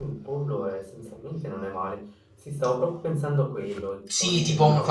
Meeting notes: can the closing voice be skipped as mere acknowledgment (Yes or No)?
No